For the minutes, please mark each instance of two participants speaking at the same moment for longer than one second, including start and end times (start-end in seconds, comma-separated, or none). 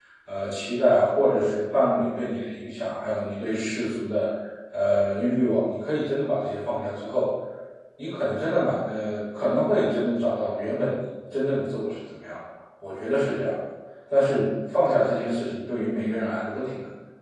none